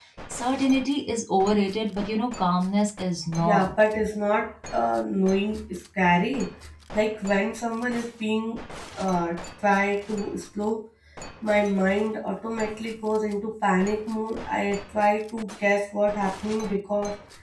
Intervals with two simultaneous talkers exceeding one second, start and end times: none

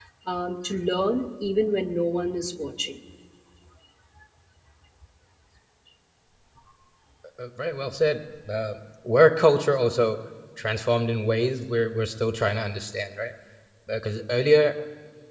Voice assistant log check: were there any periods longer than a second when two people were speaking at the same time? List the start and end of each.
none

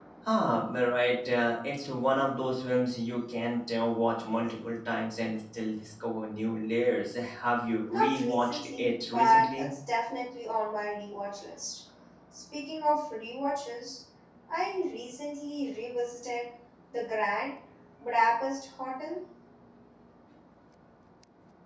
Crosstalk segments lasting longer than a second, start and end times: 7.9-9.7

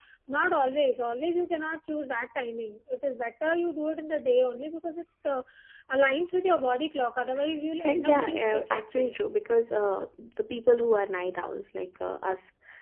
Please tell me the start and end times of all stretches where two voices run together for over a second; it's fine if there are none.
7.8-9.2

